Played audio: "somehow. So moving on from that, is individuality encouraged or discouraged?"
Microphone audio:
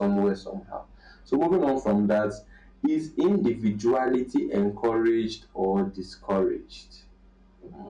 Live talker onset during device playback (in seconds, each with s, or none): none